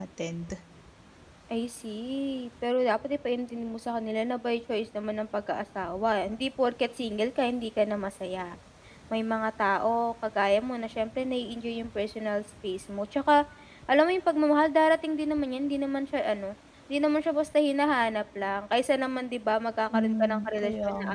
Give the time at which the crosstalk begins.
19.9 s

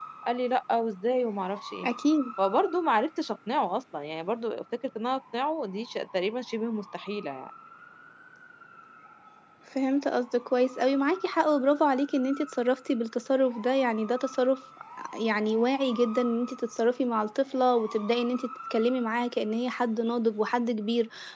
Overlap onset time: none

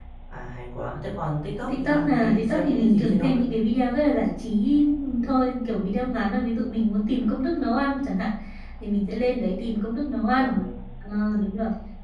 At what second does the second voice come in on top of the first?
1.7 s

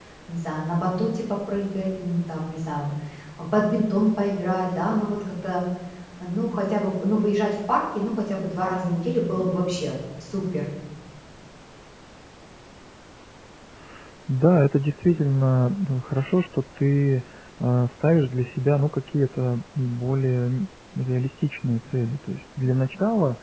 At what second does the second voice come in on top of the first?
none

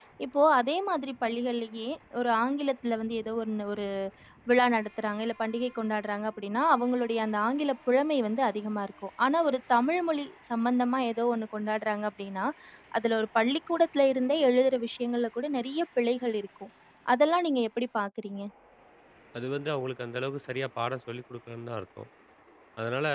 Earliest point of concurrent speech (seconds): none

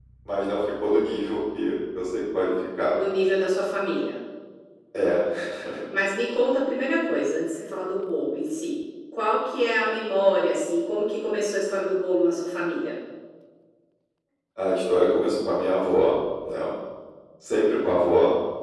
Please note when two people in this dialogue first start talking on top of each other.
none

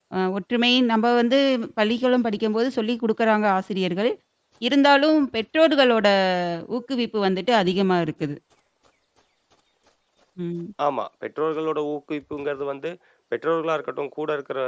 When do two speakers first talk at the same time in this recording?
none

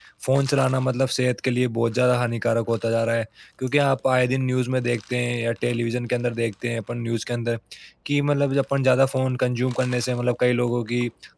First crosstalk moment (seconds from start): none

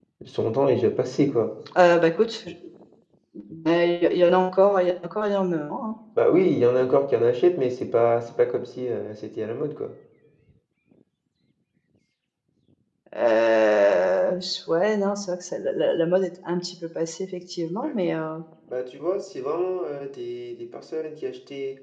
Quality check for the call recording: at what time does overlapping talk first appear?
none

